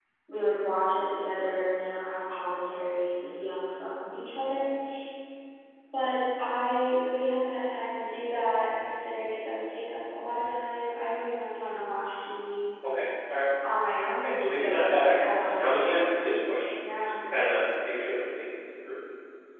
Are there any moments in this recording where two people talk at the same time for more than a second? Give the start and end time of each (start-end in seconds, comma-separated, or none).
14.2-15.7